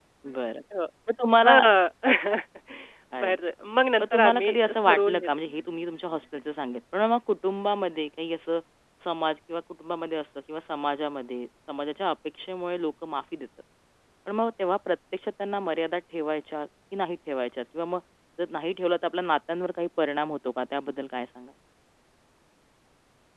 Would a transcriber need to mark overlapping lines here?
Yes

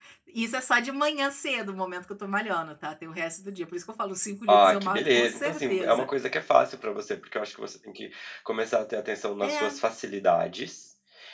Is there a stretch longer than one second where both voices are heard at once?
Yes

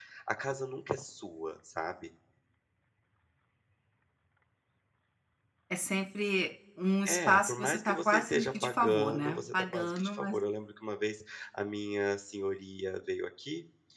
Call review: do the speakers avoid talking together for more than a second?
No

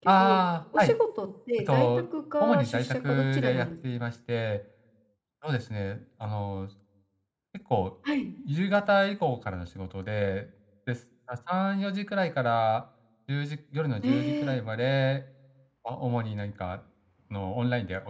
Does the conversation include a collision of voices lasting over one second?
Yes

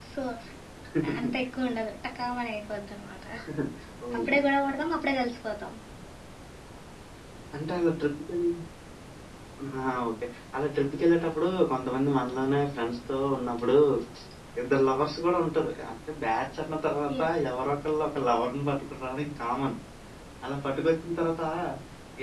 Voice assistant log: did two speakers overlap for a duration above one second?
No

